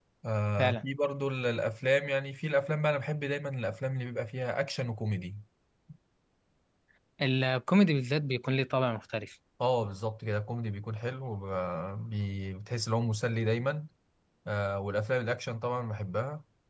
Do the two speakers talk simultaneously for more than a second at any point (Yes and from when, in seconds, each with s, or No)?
No